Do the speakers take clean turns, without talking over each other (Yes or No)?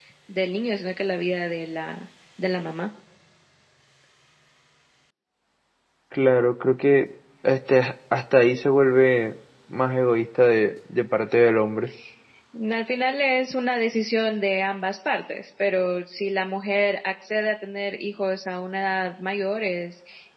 Yes